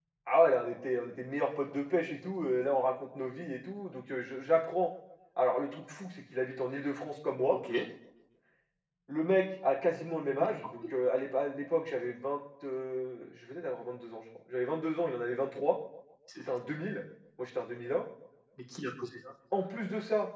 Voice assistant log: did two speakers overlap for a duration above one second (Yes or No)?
No